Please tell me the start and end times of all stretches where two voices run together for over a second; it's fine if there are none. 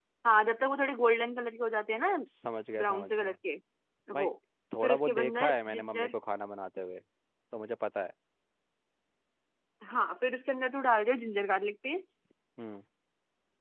4.8-6.1

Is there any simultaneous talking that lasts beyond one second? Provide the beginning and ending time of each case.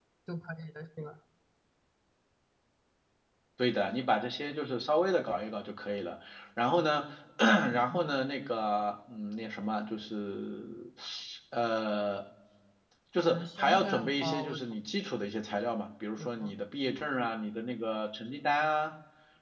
13.3-14.6

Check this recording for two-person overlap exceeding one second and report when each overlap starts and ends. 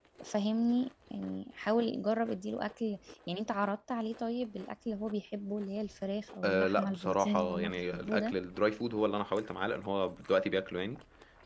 6.4-8.2

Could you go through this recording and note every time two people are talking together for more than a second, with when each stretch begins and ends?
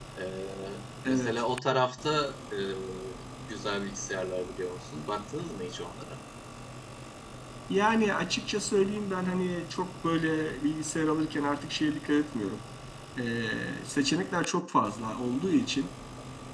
none

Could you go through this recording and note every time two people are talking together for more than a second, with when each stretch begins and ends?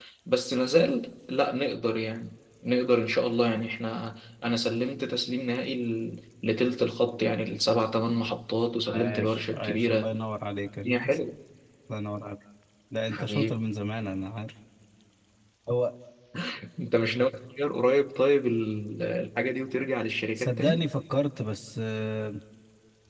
8.9-10.1

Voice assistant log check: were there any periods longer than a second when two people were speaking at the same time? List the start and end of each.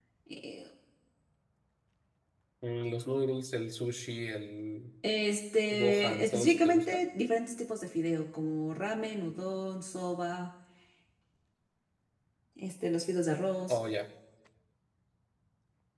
5.7-7.0

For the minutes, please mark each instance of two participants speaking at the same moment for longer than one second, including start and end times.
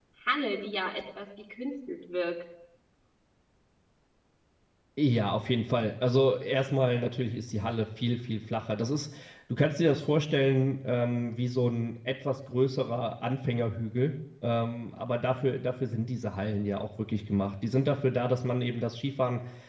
none

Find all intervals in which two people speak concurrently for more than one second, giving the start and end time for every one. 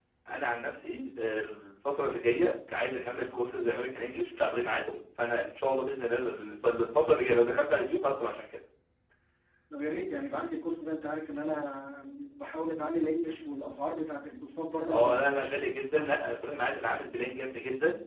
14.9-16.2

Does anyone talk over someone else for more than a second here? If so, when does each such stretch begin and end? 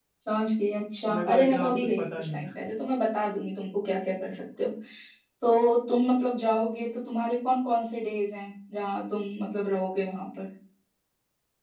1.0-2.5

